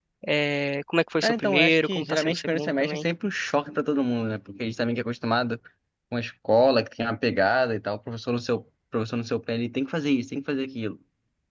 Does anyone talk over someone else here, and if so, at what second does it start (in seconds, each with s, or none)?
1.2 s